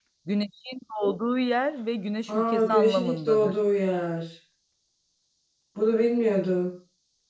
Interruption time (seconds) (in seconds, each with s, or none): 2.3 s